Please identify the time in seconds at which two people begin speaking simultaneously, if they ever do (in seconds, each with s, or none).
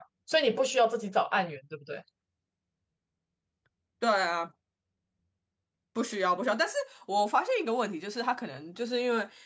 none